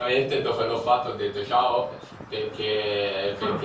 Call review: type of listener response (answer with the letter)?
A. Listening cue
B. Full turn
A